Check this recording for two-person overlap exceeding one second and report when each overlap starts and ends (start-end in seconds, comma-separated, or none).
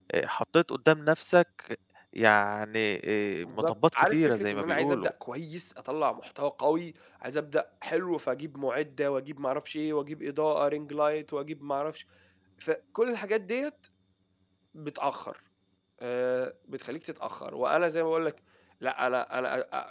3.4-5.1